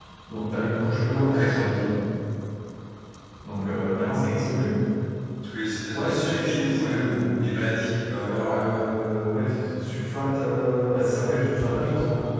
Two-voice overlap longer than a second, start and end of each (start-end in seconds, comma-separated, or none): 5.9-7.3